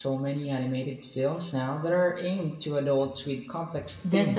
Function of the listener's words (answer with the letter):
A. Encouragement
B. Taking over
B